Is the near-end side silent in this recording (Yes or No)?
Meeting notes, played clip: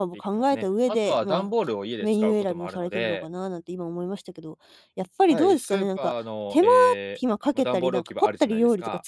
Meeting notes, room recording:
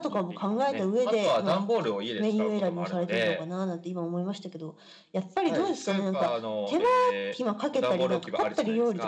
Yes